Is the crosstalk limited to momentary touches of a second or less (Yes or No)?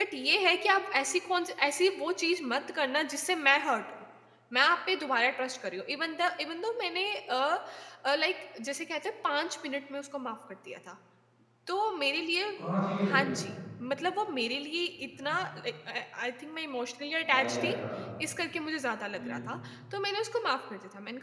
Yes